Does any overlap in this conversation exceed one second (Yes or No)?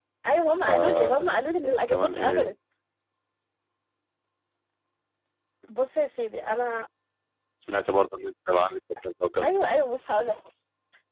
Yes